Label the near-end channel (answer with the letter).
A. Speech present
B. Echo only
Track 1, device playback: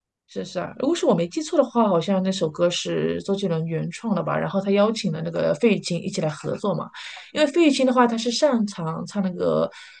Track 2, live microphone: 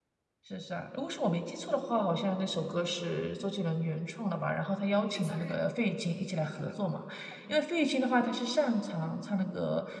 A